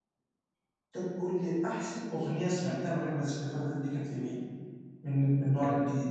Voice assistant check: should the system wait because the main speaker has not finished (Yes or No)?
No